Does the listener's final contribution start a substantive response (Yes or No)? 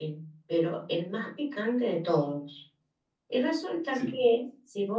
No